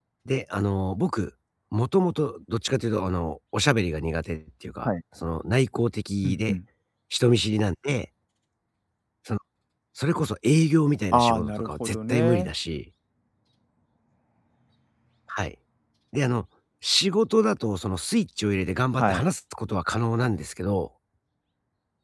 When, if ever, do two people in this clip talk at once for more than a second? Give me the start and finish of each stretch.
11.1-12.5

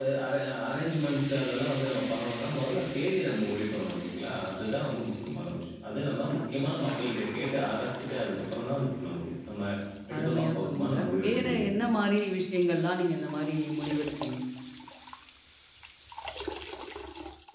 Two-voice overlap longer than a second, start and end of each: 10.2-11.7

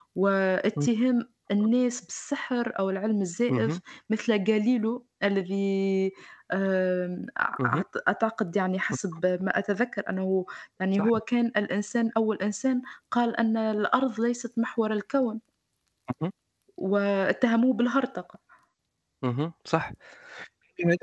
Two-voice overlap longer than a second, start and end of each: none

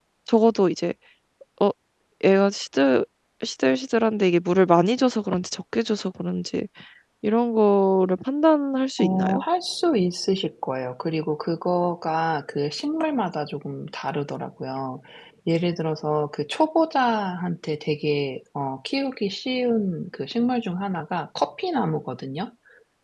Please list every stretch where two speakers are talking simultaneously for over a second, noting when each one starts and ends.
none

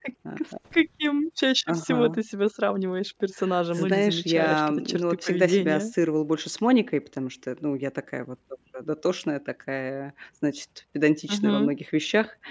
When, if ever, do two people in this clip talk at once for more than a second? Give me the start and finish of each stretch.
3.8-5.9

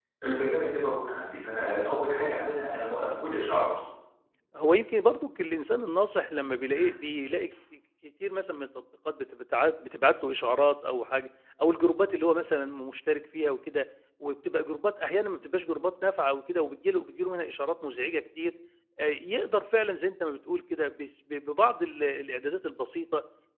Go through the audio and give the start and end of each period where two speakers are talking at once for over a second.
none

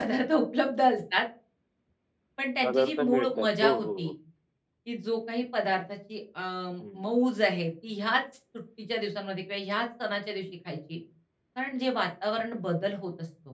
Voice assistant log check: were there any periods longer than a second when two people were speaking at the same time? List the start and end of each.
2.6-4.1

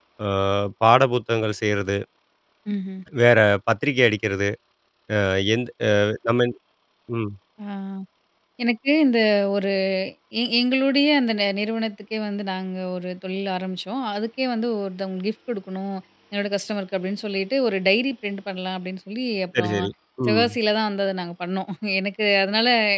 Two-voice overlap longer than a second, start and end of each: none

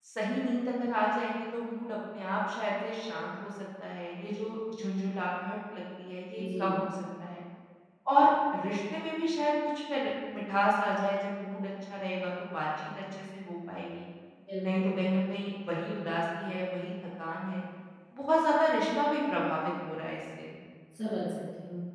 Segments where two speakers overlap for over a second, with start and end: none

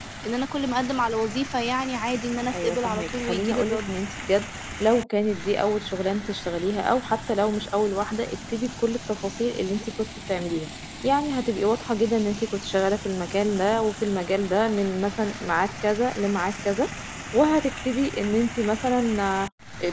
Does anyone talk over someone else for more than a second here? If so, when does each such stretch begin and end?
2.5-3.9

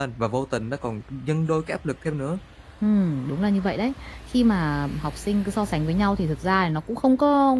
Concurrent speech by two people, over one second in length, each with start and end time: none

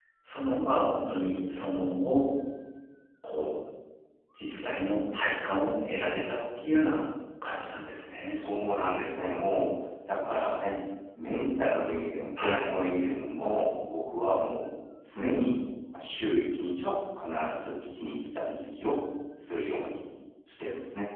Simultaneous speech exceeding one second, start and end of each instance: none

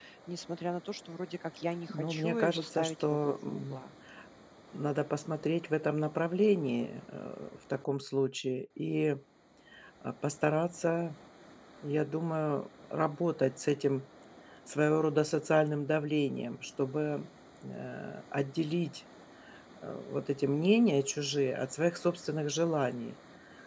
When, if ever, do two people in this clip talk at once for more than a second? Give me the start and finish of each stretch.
1.9-3.8

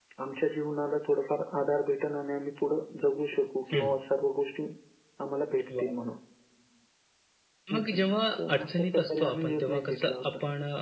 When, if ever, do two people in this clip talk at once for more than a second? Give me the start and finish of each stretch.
8.4-10.2

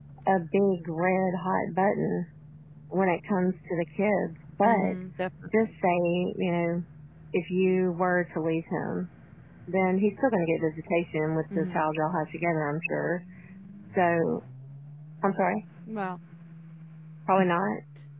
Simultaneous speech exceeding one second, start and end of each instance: none

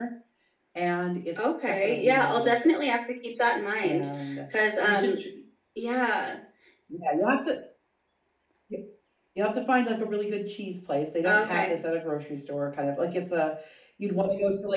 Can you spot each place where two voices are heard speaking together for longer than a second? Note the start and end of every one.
1.4-2.9

